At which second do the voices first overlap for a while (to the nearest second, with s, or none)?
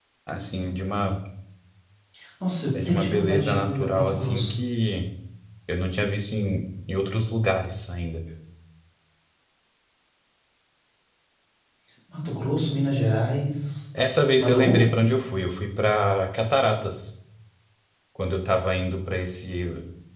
3 s